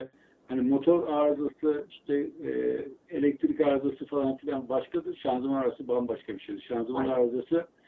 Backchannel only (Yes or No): Yes